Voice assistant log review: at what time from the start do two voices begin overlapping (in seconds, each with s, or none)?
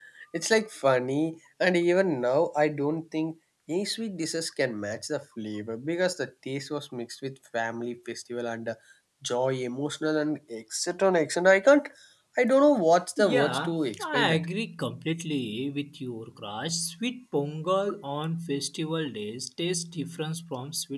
13.2 s